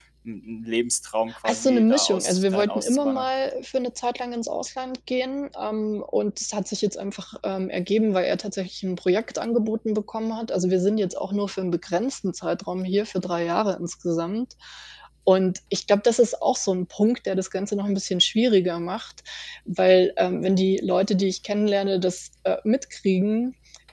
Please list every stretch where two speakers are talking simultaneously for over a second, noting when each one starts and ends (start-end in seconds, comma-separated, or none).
1.4-3.2